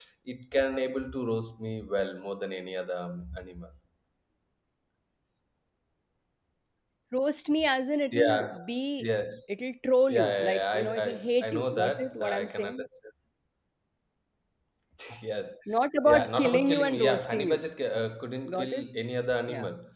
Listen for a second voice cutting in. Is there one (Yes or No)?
Yes